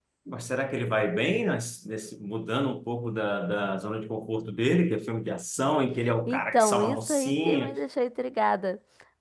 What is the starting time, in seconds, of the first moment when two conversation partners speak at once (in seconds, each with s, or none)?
6.3 s